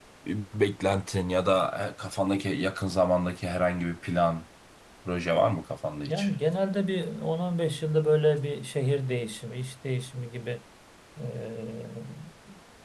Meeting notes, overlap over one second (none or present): none